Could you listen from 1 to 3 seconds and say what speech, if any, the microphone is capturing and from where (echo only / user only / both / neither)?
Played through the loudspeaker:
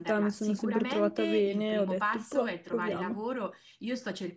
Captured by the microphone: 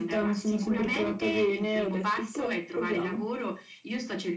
echo only